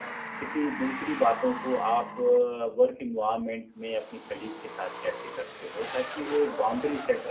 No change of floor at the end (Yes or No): Yes